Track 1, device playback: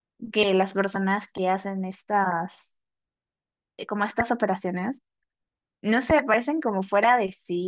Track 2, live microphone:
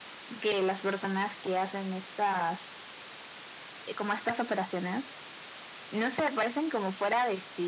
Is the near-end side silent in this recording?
Yes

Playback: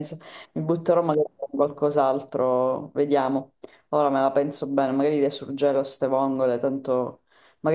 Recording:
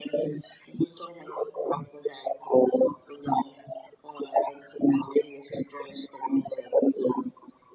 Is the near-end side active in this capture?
No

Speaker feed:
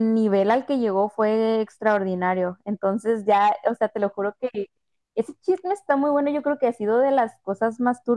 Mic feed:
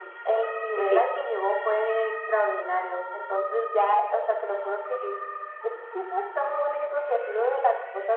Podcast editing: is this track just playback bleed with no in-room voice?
No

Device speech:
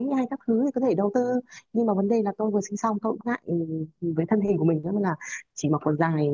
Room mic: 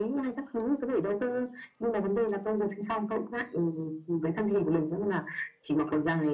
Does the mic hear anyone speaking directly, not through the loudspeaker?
No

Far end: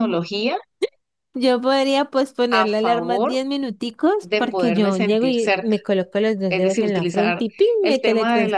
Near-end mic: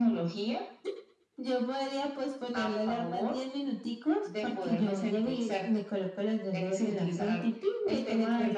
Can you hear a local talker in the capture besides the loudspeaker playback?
No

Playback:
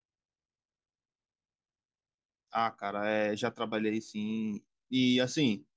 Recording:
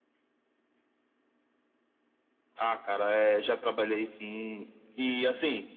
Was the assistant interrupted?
No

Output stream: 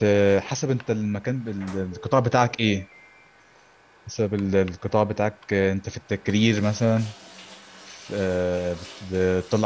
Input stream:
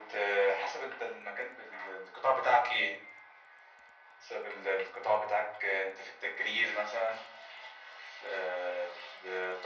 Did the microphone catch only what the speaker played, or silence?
Yes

